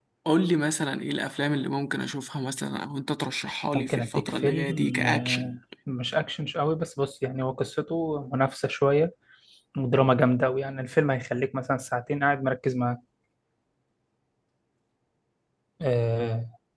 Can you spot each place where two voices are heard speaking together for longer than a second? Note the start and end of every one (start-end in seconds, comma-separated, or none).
3.7-5.5